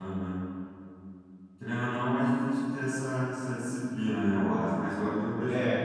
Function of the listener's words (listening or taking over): listening